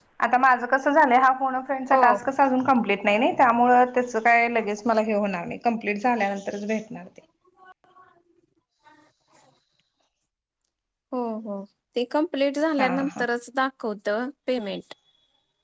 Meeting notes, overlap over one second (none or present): none